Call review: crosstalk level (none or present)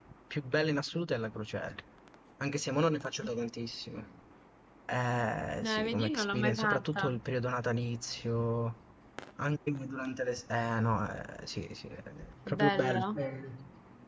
present